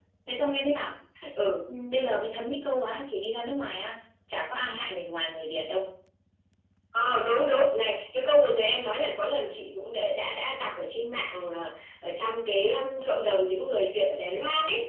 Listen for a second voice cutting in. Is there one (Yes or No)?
No